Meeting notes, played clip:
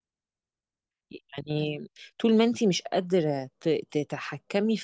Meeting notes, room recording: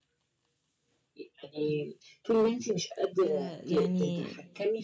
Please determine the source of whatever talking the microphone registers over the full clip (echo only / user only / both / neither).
both